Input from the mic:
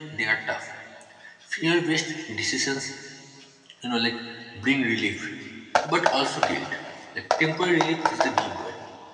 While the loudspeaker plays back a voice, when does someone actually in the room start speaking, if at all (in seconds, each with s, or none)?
none